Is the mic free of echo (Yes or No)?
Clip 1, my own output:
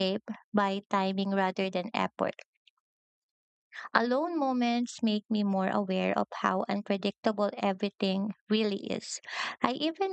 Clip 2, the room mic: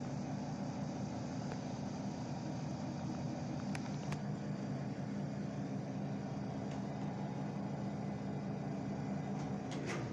Yes